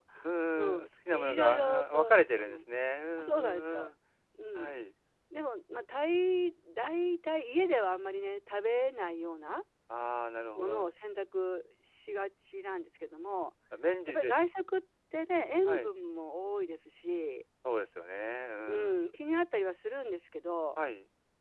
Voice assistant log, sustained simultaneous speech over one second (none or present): present